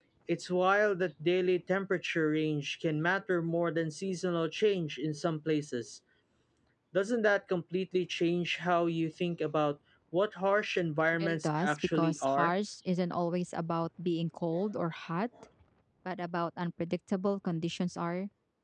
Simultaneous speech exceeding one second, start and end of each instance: 11.1-12.5

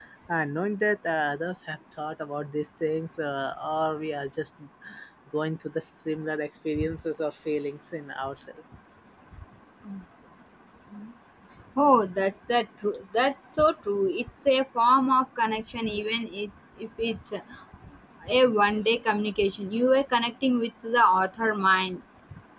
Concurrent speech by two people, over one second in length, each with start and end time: none

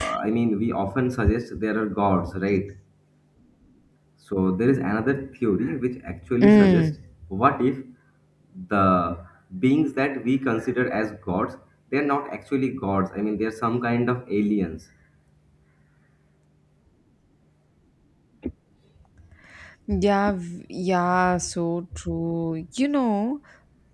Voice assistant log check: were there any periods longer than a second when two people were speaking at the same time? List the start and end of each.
none

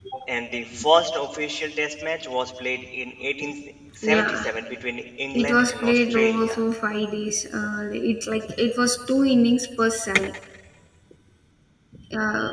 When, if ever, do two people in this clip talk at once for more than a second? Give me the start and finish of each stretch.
5.3-6.6

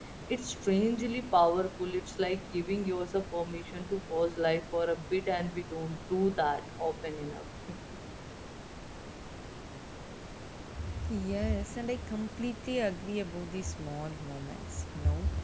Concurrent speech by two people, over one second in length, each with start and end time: none

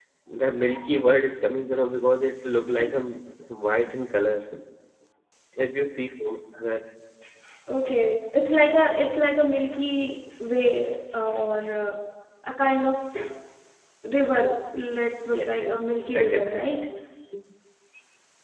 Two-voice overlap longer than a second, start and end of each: 15.3-16.6

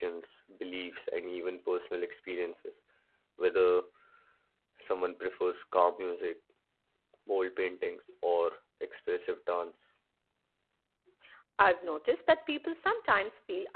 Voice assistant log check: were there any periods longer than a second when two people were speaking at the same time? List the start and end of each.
none

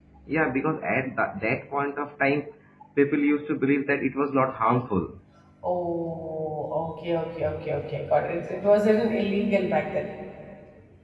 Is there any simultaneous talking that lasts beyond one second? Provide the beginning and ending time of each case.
none

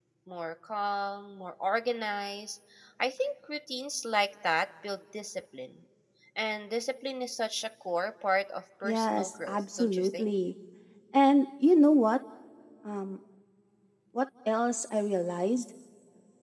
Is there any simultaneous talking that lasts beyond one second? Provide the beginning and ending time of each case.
8.8-10.3

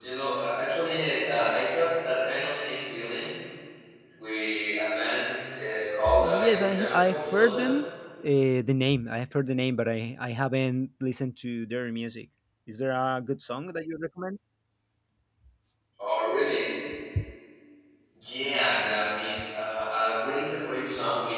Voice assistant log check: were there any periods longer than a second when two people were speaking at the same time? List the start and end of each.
6.2-7.7

